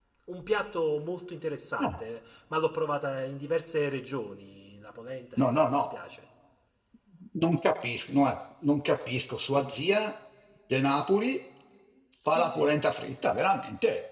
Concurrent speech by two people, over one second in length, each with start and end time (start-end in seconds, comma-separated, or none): none